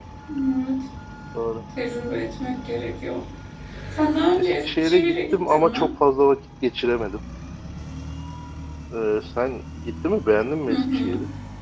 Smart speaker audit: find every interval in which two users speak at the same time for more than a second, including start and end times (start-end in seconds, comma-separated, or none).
4.3-5.9